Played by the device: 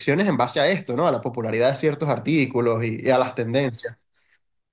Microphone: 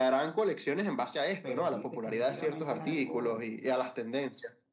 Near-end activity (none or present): present